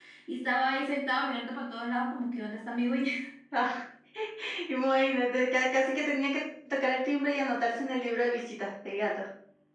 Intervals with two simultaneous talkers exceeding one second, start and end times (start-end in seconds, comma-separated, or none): none